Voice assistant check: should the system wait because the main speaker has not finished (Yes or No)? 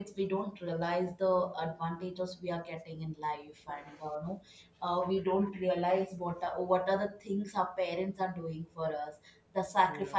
Yes